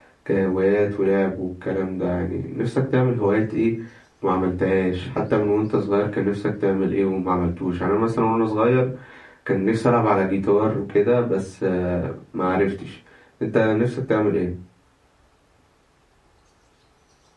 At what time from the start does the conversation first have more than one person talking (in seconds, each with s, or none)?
none